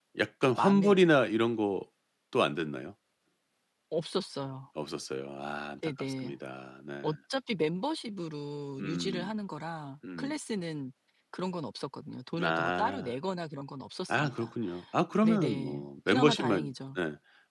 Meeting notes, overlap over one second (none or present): present